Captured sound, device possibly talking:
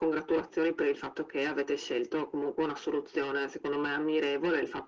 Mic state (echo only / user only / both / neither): echo only